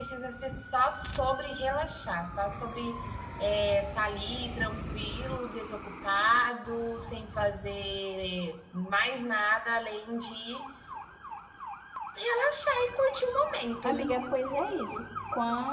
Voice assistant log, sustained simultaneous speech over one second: none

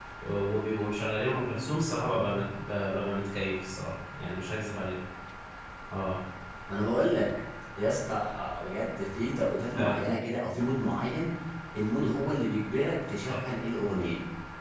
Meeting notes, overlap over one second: none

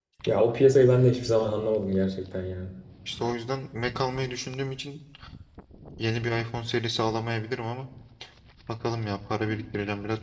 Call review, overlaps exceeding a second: none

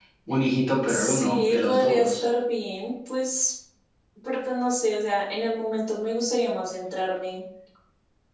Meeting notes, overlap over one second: present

